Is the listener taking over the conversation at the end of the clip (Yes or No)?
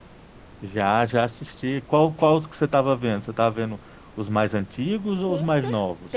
Yes